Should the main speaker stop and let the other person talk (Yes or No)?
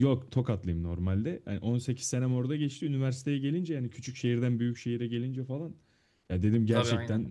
No